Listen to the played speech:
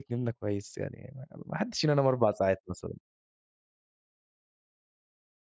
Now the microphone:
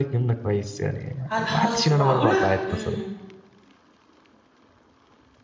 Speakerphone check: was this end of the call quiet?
No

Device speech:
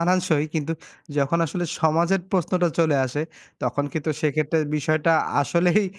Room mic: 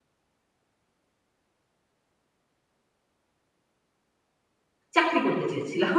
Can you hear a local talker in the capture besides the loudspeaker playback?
Yes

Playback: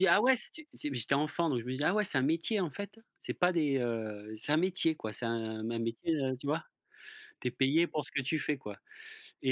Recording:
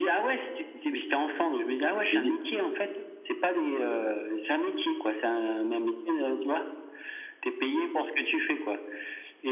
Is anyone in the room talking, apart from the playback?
Yes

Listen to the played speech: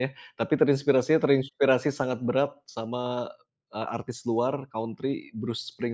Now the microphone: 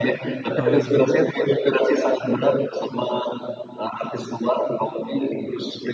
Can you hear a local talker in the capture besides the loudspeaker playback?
Yes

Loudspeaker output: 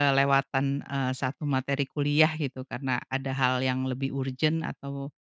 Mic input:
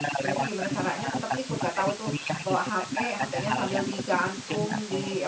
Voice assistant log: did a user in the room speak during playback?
Yes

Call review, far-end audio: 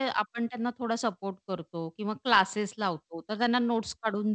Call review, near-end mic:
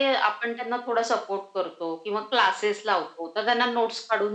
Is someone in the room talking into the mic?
No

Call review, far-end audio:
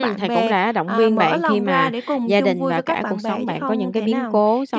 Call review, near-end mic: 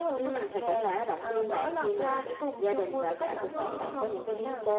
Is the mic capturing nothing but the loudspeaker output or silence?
No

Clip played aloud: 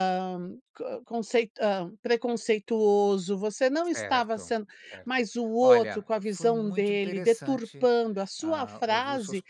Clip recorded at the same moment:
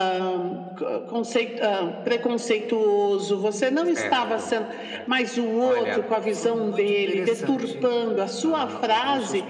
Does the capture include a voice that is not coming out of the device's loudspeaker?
No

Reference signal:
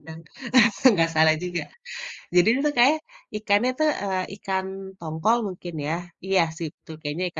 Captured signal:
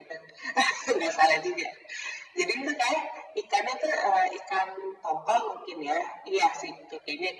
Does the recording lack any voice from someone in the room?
Yes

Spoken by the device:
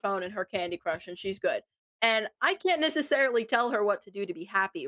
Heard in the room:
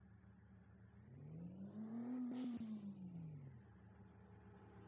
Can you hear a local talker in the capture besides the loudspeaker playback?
No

